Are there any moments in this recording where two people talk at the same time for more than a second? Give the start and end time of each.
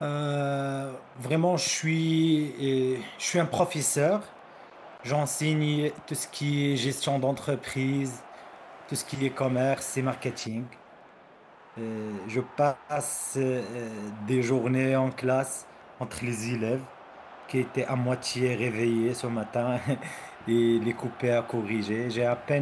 none

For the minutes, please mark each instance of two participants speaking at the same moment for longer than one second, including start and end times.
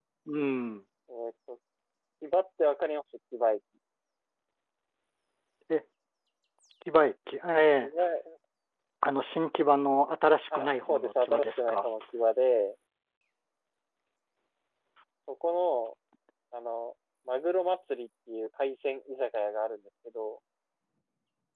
10.6-11.9

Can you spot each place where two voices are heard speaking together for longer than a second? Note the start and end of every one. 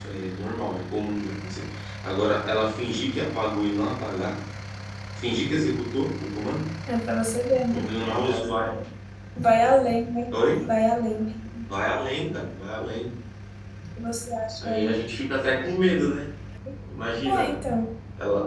none

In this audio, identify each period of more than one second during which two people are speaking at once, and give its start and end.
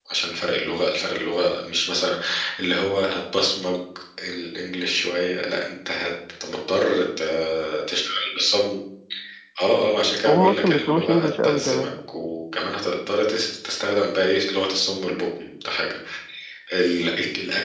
10.2-11.9

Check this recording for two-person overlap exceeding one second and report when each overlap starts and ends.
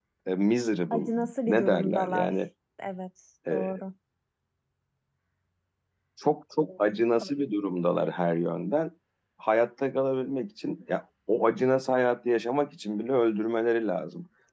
0.9-2.3

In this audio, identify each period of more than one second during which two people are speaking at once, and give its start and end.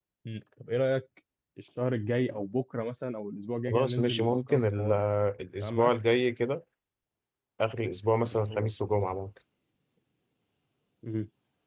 3.7-5.0

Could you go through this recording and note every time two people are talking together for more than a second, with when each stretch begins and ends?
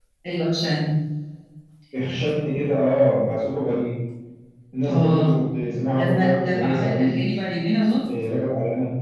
6.0-7.2

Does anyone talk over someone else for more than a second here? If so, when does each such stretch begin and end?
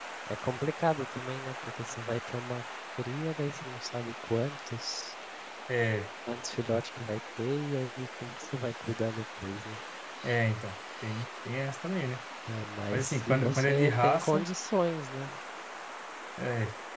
12.9-14.5

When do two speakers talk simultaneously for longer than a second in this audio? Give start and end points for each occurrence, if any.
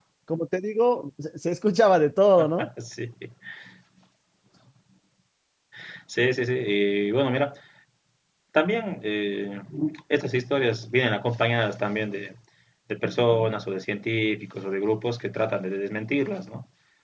none

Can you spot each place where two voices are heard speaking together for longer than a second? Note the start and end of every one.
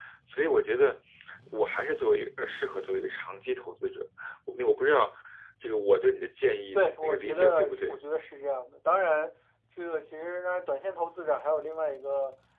6.7-8.0

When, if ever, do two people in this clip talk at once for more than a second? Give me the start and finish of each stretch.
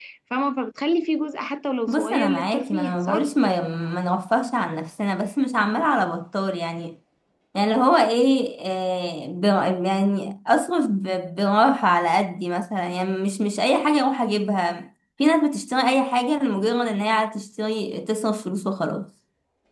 1.9-3.3

